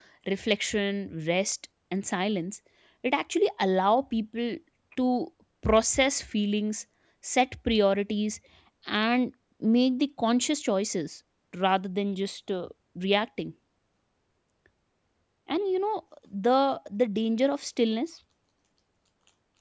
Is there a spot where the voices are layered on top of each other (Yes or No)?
No